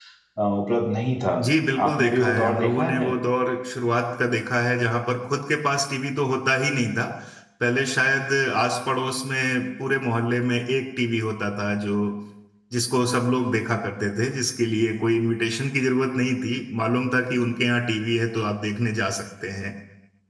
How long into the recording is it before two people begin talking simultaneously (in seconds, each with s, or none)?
1.8 s